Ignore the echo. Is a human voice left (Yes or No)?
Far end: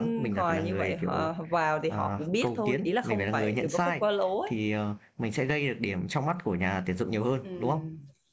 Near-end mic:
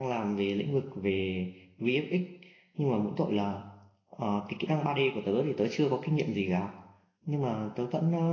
Yes